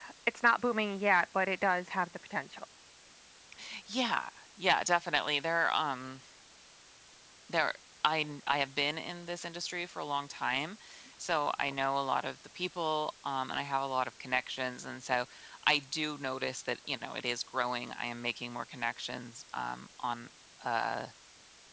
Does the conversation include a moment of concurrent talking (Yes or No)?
No